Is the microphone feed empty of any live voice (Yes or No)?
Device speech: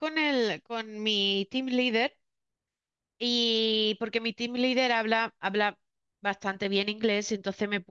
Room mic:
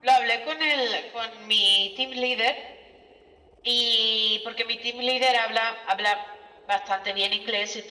Yes